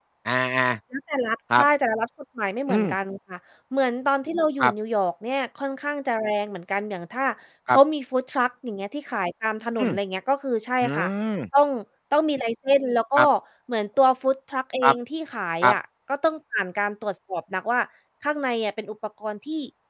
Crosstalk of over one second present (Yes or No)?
No